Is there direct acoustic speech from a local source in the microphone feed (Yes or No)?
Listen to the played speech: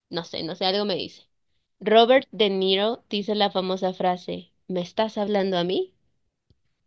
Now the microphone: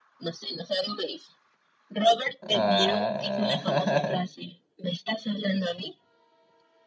Yes